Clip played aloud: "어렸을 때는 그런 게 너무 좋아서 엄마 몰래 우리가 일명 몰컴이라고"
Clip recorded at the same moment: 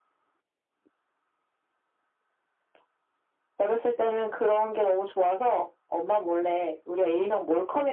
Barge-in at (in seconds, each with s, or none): none